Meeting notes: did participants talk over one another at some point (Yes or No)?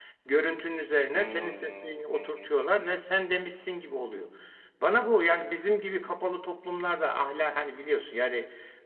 Yes